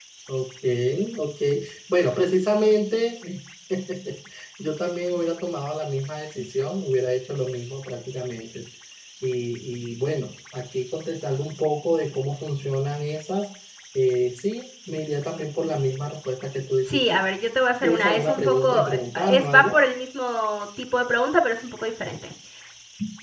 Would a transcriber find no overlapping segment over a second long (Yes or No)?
No